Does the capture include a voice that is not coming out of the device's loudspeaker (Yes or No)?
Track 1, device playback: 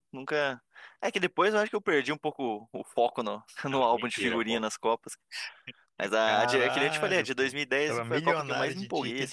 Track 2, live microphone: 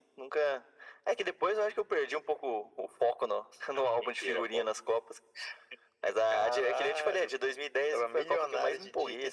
No